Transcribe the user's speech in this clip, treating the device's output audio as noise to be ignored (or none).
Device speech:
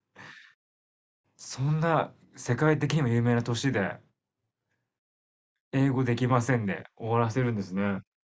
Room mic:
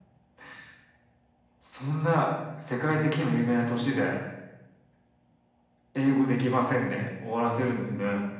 none